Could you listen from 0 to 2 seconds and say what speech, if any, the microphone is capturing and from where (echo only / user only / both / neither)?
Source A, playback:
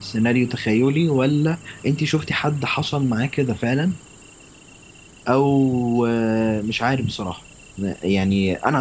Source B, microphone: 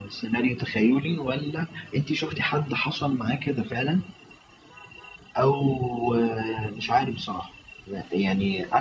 echo only